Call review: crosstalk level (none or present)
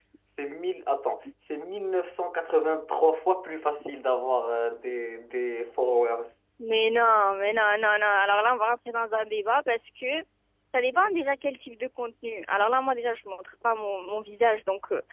none